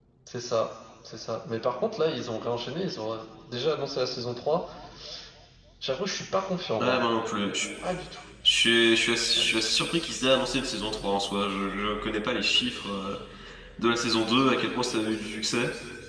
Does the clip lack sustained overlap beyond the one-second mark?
Yes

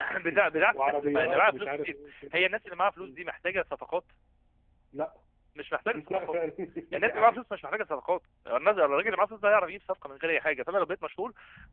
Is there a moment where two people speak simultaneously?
Yes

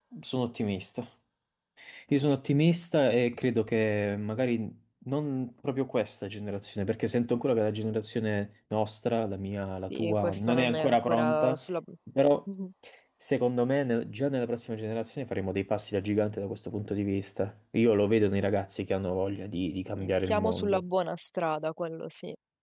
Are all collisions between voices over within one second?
No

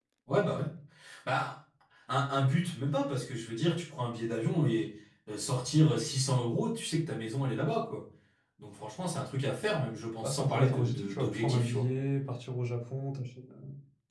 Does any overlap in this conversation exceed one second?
Yes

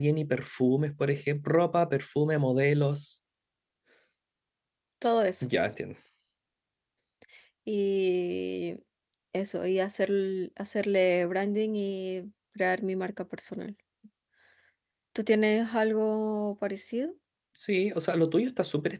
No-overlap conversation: Yes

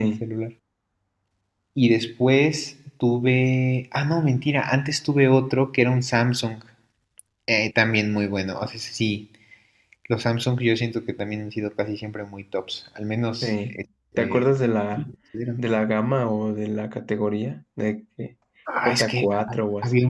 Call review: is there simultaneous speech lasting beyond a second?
Yes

